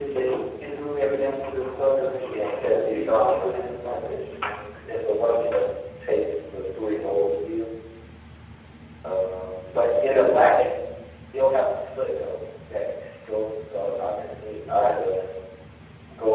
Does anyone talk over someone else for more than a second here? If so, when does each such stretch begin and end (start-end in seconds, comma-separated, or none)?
2.2-4.2